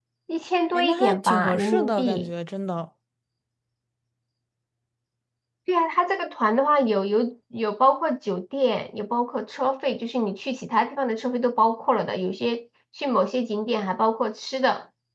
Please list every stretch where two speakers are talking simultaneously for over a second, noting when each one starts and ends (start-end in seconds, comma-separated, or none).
0.7-2.3